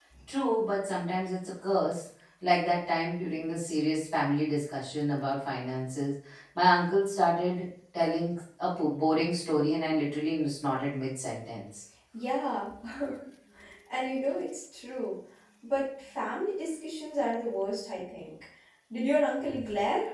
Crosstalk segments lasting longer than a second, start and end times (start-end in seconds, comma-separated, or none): none